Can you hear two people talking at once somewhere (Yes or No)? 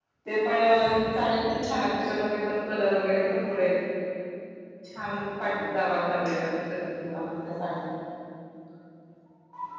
No